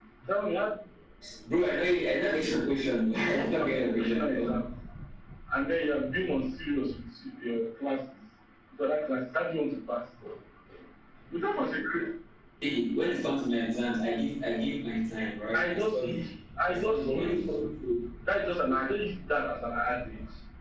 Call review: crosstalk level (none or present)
present